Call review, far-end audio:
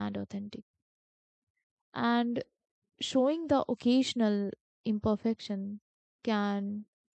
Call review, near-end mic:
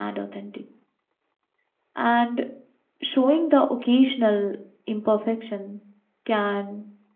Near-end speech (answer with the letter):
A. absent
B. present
A